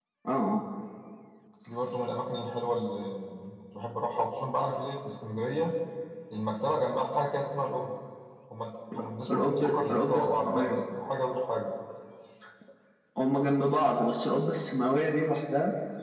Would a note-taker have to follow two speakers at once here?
Yes, from 9.3 s

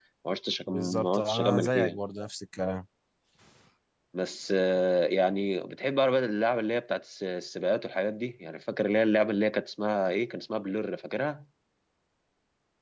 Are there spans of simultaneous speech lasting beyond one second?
Yes, from 0.7 s

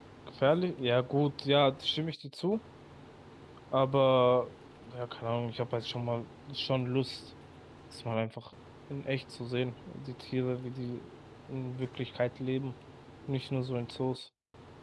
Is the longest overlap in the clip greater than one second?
No

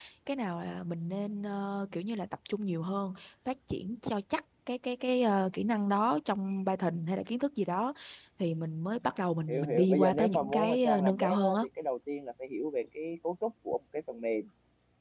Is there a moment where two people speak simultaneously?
Yes, from 9.5 s

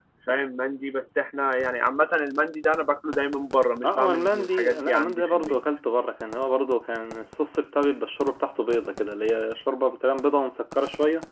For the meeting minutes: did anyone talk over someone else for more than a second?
Yes, from 3.8 s

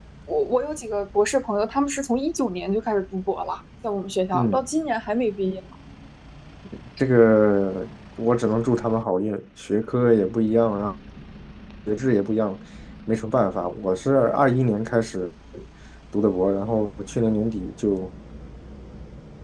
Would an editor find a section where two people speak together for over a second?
No

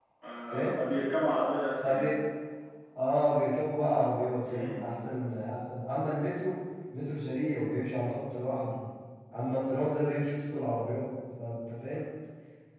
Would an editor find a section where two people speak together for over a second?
No

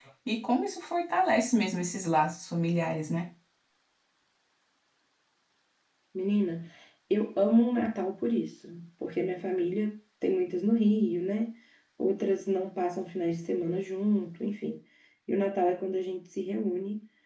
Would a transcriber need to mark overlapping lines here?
No

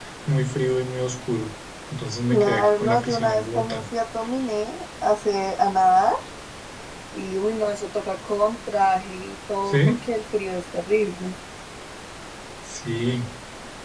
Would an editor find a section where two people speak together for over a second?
Yes, from 2.3 s

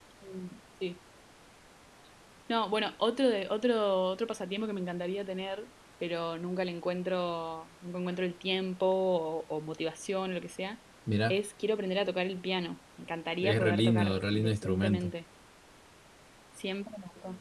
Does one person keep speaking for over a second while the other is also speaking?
Yes, from 13.4 s

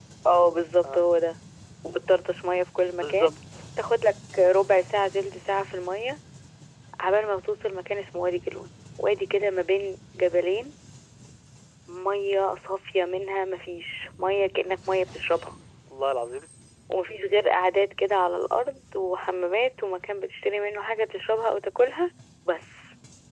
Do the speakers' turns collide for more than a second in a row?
No

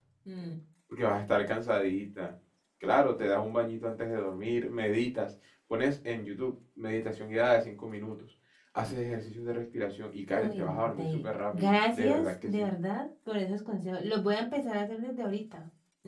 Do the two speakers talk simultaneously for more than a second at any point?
Yes, from 10.4 s

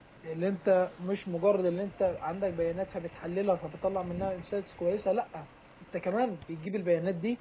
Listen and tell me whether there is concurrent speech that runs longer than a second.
No

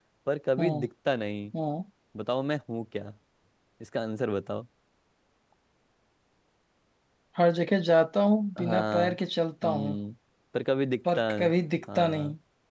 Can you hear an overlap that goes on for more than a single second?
No

